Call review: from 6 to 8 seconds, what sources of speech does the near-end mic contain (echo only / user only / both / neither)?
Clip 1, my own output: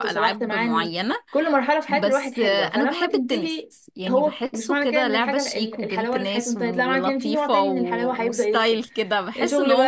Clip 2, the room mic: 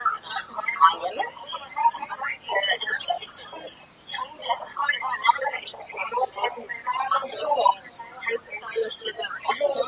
echo only